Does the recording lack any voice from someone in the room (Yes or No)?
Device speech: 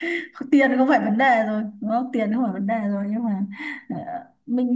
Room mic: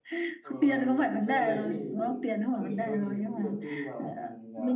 No